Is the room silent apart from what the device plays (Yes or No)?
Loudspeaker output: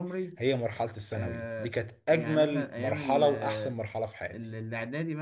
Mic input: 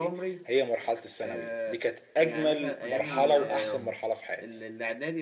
No